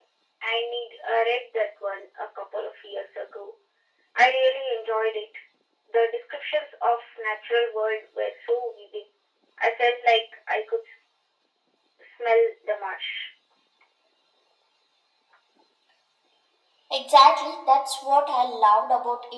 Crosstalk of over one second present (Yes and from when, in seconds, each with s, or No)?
No